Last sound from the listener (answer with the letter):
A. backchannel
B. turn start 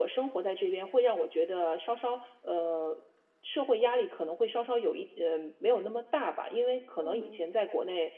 A